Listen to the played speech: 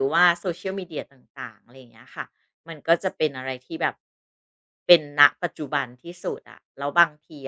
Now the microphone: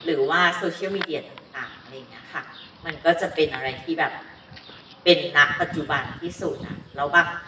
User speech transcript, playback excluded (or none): none